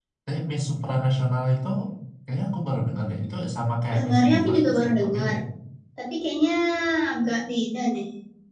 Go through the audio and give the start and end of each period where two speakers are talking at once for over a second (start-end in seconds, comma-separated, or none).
3.9-5.3